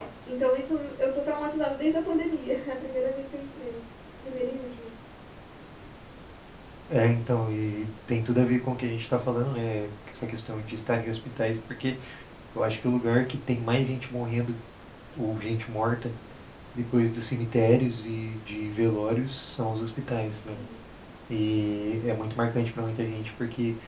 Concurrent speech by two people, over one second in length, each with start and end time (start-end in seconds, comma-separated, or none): none